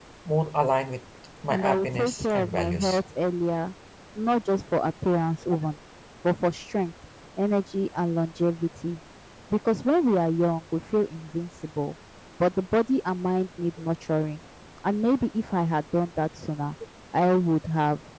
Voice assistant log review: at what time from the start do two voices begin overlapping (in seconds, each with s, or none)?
1.5 s